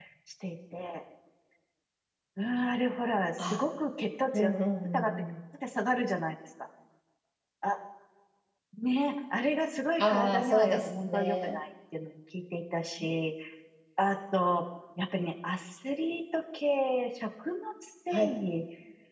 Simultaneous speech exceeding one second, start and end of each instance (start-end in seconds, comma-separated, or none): 10.0-11.6